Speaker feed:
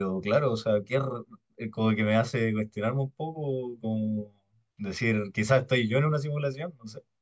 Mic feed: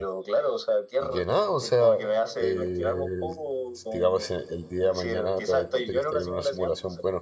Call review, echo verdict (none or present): present